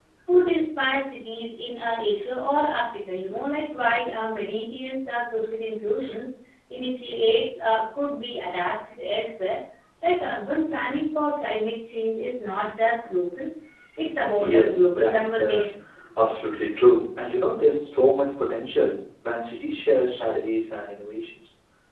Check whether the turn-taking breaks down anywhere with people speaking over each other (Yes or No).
Yes